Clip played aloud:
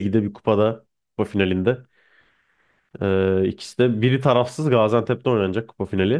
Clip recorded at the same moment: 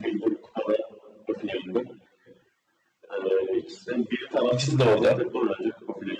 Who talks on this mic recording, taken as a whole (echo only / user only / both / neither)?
both